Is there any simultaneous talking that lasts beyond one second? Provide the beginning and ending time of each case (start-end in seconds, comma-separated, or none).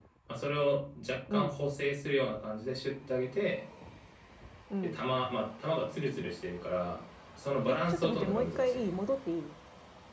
7.7-9.0